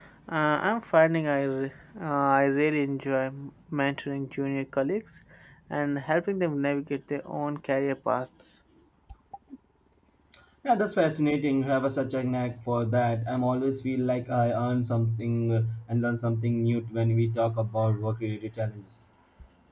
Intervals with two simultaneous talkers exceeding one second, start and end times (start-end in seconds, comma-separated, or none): none